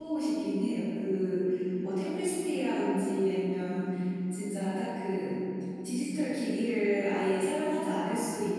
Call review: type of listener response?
listening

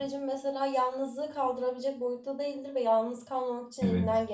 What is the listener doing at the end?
listening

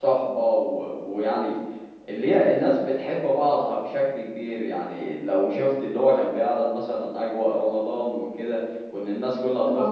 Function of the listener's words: listening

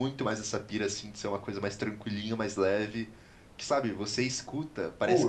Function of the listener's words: taking over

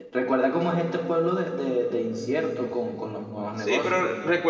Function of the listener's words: taking over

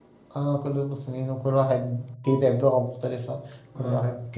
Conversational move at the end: listening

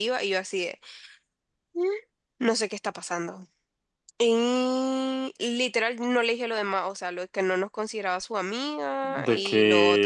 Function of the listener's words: taking over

